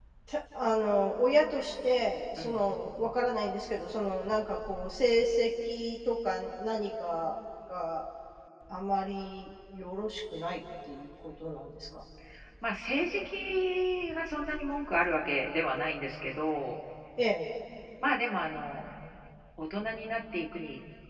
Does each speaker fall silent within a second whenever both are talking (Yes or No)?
Yes